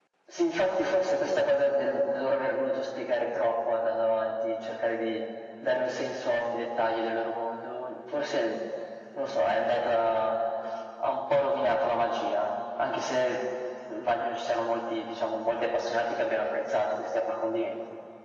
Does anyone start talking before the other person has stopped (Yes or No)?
No